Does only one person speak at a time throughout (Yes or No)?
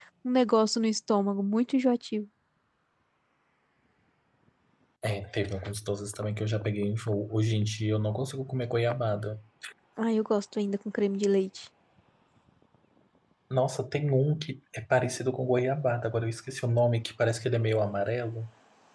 Yes